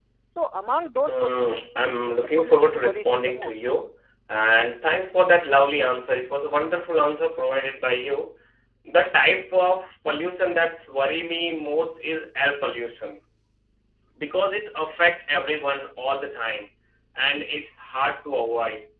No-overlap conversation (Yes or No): No